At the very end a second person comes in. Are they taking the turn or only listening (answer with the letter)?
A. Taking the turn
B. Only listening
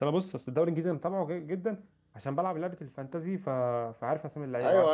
A